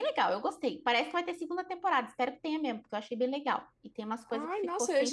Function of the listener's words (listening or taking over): taking over